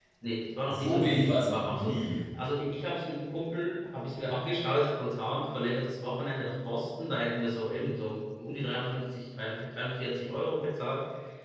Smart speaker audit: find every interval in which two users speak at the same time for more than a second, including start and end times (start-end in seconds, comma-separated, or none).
0.7-1.9